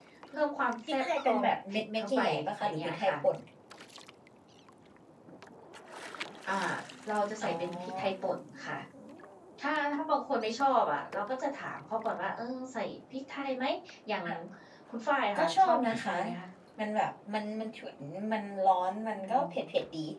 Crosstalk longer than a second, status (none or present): present